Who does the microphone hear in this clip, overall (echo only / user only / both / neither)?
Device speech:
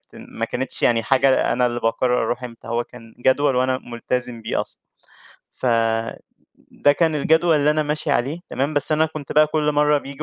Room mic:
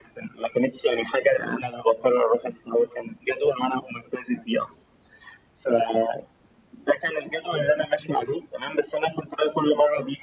echo only